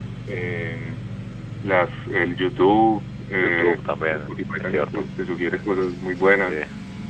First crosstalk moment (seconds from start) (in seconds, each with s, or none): 3.4 s